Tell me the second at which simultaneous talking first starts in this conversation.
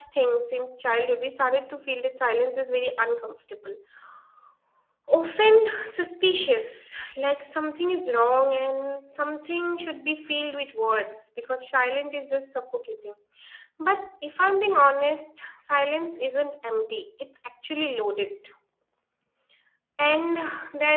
none

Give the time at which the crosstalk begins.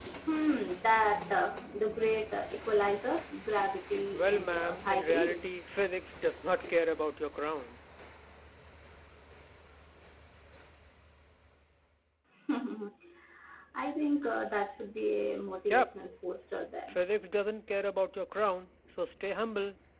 4.1 s

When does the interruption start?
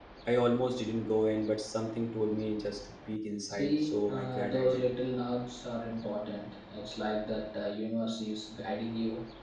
3.5 s

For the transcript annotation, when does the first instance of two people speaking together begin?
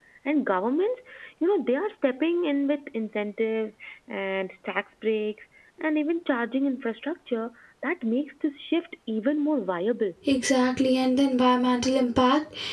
none

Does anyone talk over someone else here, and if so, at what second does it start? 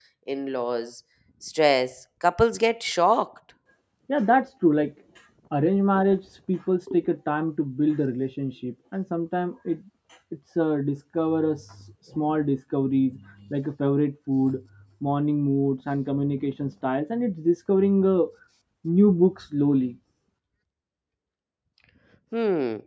none

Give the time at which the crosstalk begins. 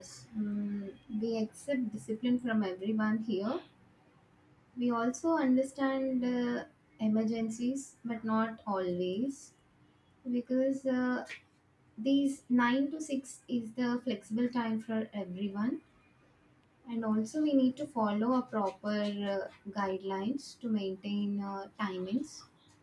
none

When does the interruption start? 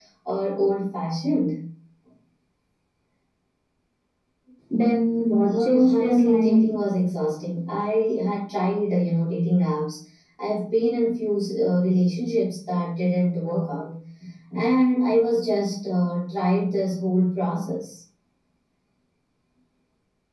5.5 s

